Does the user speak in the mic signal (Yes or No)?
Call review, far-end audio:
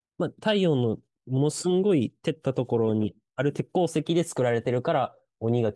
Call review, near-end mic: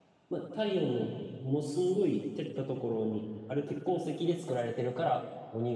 No